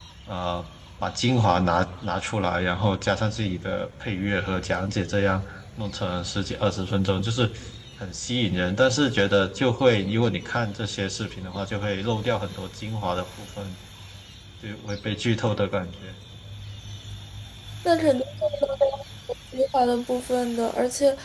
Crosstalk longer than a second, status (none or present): none